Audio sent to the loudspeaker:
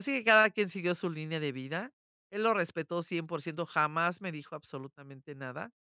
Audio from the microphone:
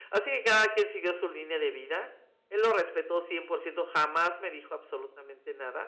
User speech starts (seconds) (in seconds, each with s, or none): none